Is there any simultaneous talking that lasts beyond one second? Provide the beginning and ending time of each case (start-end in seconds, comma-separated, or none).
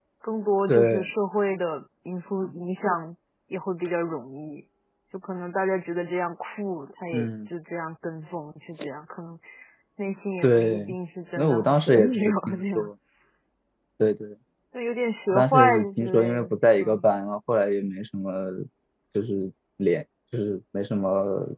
11.4-12.9, 15.3-17.0